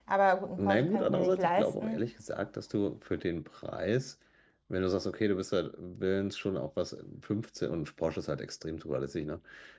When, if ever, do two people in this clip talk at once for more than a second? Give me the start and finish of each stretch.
0.6-2.1

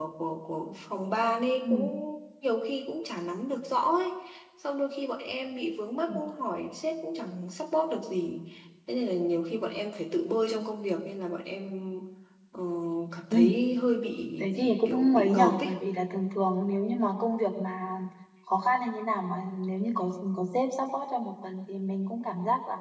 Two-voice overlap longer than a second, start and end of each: 14.4-15.7

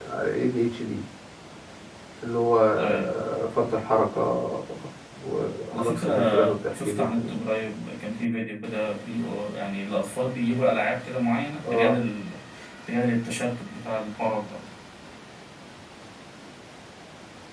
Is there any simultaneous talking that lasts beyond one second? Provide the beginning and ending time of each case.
5.7-7.4

